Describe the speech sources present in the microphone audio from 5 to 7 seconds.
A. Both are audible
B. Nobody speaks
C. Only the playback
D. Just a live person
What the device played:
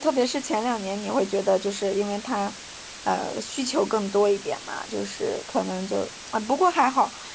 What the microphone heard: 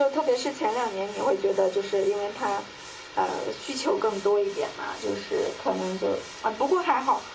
C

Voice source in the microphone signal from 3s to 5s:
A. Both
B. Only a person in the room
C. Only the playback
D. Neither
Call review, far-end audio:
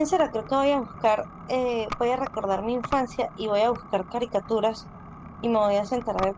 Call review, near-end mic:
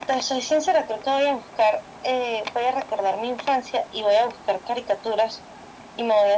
C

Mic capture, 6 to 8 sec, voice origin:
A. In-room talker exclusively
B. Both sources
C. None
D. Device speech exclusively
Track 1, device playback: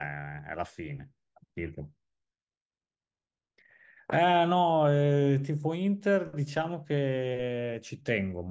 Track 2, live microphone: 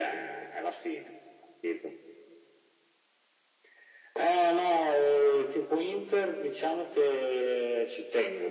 D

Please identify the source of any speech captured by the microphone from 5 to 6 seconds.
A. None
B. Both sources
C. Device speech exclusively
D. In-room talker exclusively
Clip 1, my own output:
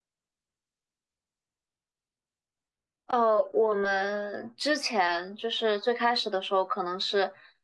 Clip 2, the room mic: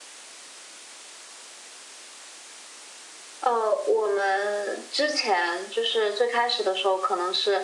C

